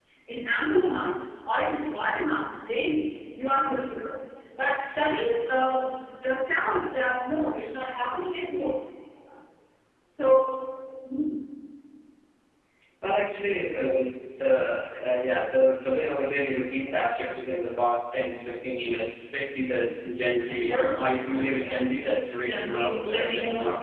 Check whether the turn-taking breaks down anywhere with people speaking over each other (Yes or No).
Yes